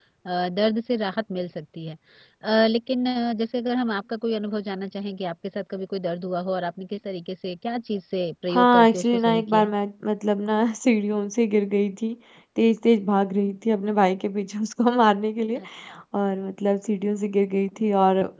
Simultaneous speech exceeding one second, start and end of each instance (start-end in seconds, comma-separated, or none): 8.5-9.7